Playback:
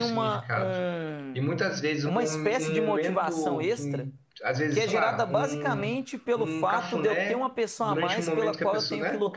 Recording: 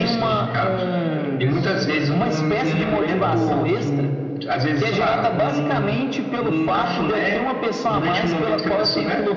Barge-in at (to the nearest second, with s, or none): 1 s